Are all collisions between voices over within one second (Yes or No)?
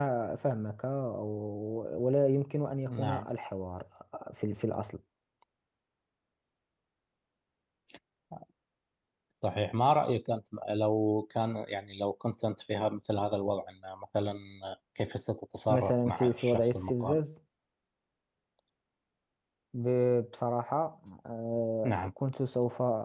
No